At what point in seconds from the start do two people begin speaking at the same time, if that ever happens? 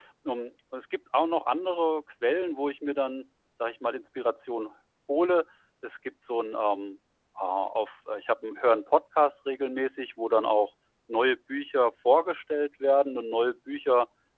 none

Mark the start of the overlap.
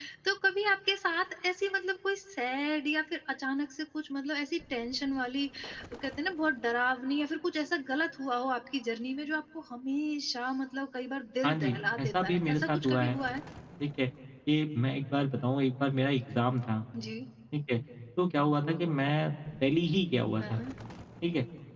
11.4 s

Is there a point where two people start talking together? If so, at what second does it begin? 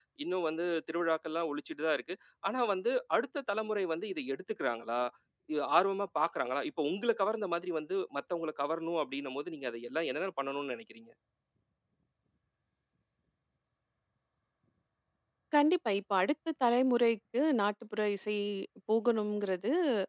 none

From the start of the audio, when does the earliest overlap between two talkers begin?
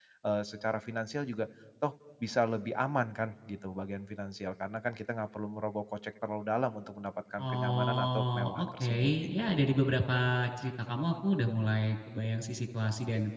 7.4 s

